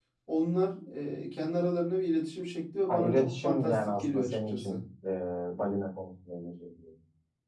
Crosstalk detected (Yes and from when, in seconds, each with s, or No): Yes, from 2.9 s